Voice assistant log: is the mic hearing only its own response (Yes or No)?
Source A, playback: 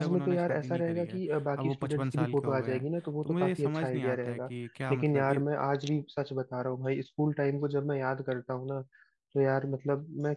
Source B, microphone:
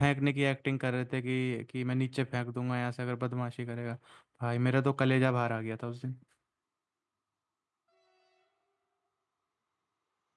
No